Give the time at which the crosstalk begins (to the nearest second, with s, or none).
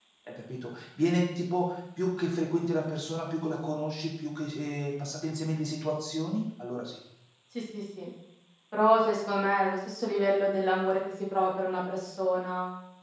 none